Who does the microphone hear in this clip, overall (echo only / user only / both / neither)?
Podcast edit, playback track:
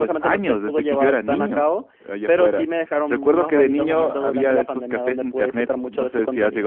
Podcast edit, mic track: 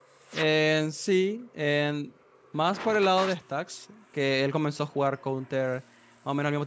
user only